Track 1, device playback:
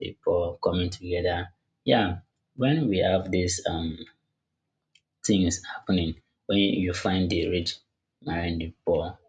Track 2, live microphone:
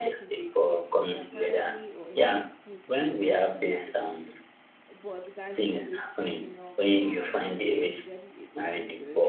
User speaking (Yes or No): Yes